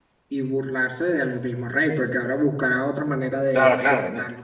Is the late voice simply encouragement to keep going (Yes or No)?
No